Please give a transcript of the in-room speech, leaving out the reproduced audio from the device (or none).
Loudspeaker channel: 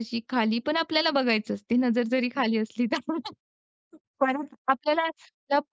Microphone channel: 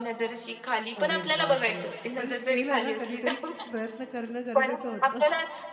अरे बापरे! पण केलं ना, कधीतरी प्रयत्न करणं गरजेचं होतं.